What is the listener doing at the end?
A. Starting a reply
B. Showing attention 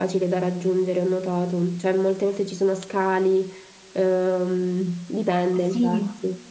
A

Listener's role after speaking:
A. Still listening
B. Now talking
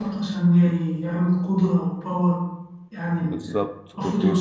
B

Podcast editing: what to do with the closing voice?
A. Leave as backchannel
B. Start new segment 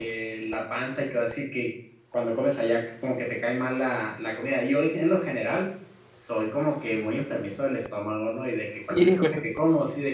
A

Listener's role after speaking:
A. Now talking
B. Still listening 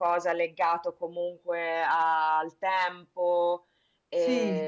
B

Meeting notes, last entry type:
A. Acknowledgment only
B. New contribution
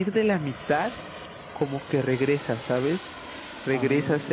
A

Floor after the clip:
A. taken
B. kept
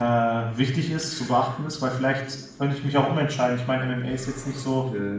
B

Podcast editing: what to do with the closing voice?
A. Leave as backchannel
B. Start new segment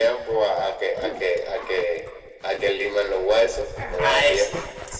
B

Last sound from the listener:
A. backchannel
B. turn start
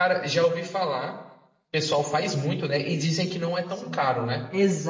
B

